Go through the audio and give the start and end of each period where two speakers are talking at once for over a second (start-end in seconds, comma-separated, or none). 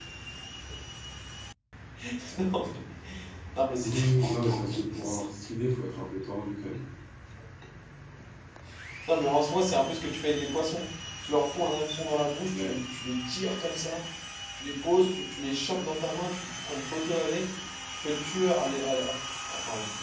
3.8-5.3